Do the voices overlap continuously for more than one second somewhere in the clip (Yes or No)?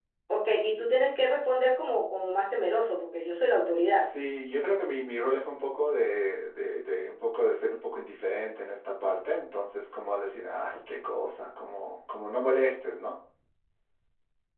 No